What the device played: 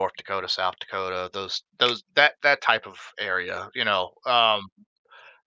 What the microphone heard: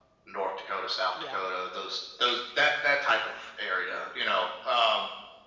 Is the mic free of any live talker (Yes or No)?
No